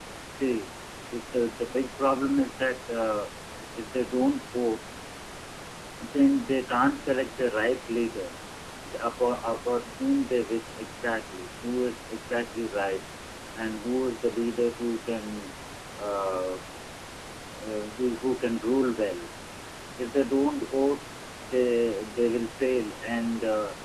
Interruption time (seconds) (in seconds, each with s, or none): none